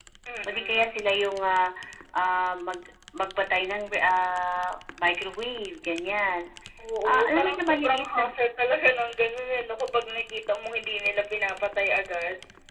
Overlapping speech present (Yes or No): Yes